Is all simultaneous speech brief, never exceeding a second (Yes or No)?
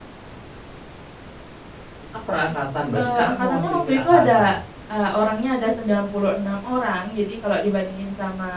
No